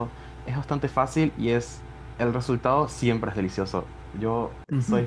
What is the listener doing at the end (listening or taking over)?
taking over